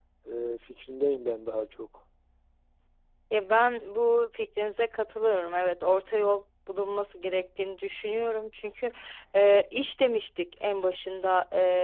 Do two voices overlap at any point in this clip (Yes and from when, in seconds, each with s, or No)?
No